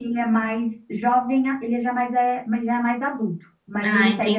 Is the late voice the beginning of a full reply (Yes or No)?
No